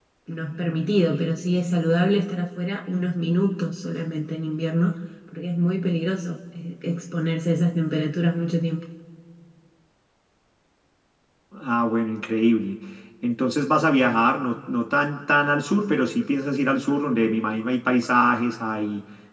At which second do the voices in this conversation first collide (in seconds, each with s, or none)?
none